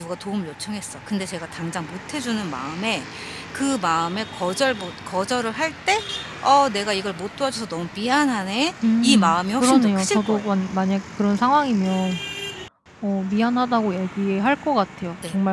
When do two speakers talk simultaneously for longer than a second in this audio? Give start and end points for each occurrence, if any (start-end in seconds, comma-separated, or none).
9.0-10.4